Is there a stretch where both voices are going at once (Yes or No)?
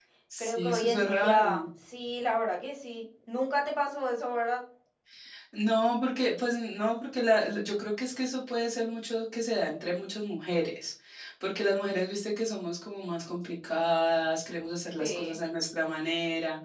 Yes